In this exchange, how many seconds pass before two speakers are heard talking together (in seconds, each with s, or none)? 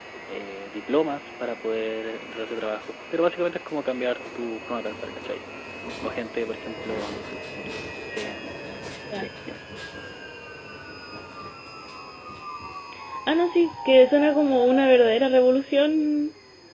none